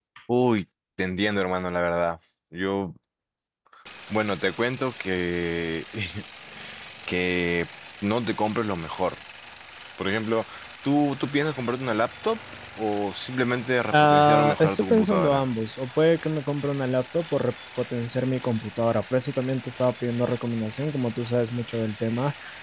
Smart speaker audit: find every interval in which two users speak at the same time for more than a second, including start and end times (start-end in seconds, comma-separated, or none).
13.9-15.5